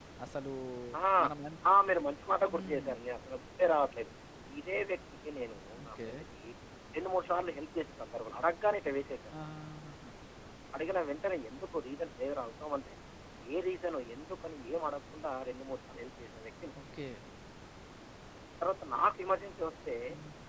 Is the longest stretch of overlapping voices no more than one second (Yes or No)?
Yes